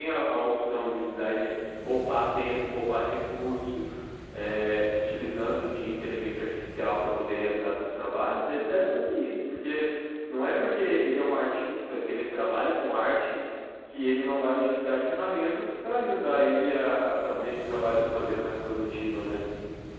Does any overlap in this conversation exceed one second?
Yes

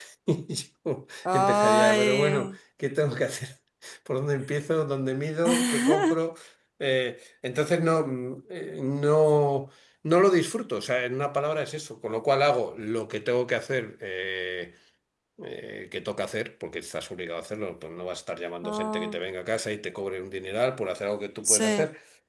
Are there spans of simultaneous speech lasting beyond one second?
Yes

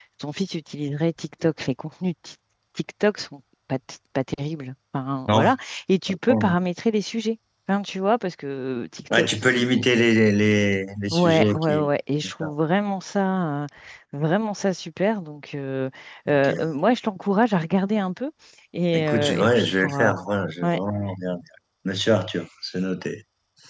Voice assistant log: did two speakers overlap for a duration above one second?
Yes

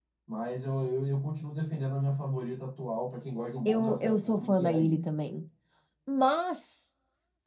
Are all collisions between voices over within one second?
No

